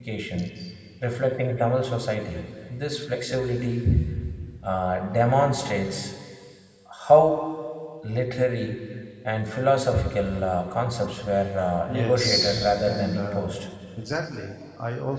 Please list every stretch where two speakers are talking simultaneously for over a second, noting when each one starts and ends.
11.9-13.5

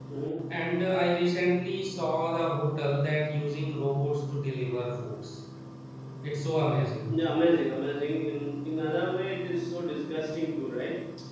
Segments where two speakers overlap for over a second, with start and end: none

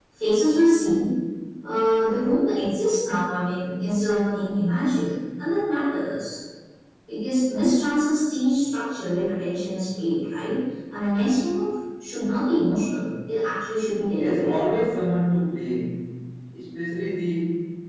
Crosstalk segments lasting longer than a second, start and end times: none

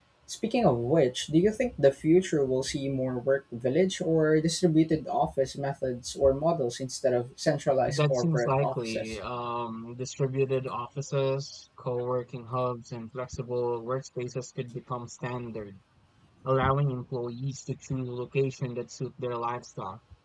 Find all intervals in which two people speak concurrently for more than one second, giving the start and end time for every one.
7.9-9.2

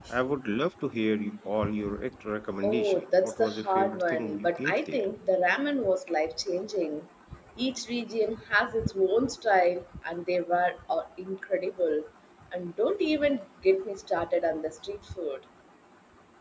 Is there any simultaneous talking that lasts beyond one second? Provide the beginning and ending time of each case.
2.6-5.0

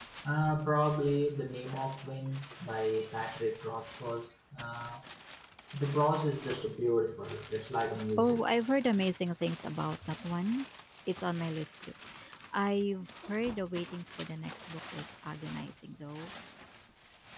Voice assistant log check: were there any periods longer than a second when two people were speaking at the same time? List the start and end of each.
none

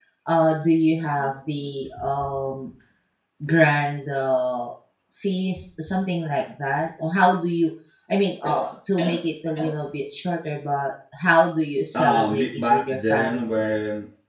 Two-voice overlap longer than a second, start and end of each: 11.9-13.6

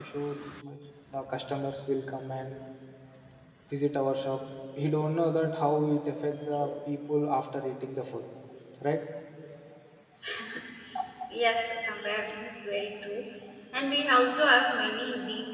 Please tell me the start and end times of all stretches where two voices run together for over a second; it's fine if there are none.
none

